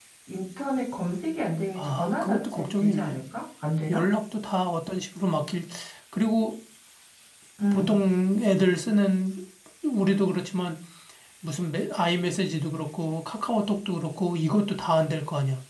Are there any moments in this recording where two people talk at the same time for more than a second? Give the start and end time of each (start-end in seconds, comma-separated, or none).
1.8-3.2